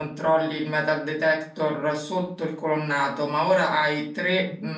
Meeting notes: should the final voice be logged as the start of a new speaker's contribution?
No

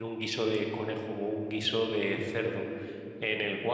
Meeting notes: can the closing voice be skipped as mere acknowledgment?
Yes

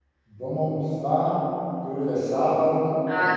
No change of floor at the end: No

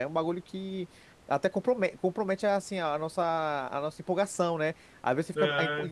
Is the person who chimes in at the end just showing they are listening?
Yes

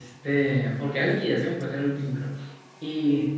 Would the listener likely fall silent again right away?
Yes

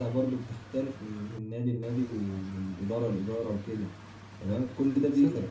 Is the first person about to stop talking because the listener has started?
No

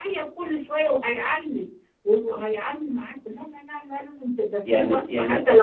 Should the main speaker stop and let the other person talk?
Yes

